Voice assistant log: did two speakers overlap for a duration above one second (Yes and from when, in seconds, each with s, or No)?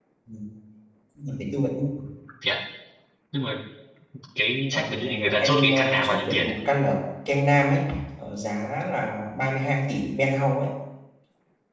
Yes, from 4.7 s